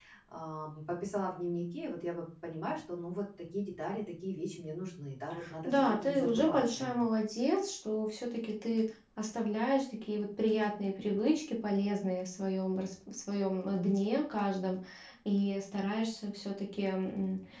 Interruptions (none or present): present